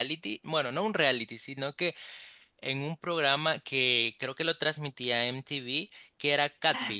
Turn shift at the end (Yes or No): Yes